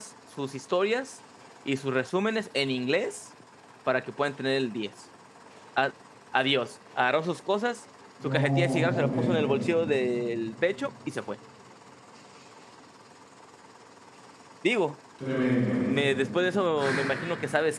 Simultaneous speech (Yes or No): Yes